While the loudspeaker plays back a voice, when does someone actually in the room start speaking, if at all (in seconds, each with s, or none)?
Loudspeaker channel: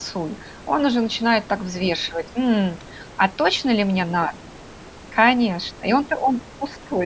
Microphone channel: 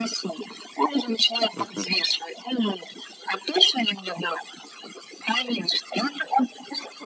1.5 s